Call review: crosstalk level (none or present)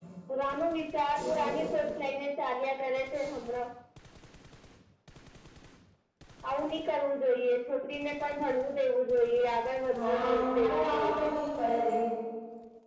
present